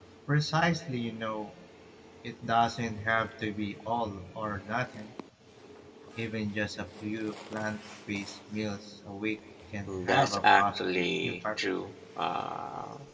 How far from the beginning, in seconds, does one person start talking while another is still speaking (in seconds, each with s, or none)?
9.9 s